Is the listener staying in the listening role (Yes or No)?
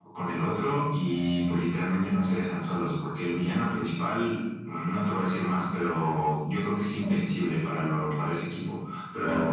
Yes